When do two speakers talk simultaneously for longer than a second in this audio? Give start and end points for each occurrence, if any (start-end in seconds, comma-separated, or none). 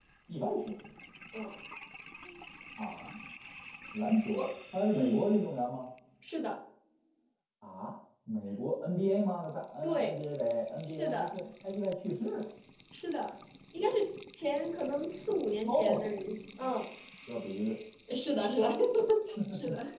none